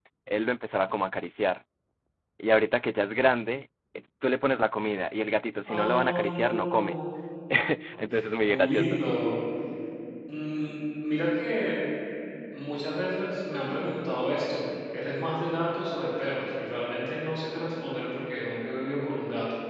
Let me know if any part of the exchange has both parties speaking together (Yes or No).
Yes